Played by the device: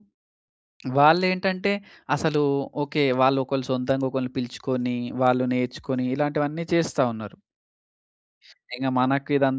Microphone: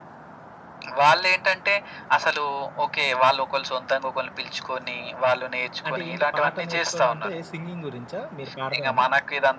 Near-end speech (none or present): present